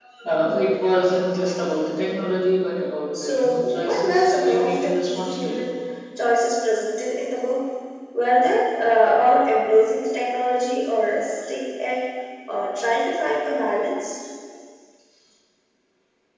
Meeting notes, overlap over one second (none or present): present